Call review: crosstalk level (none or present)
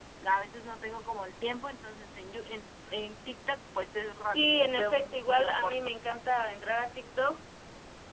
present